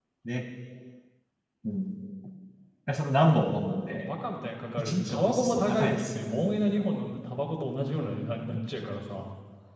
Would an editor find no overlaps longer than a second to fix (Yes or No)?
No